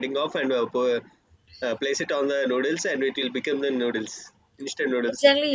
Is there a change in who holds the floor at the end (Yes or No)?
Yes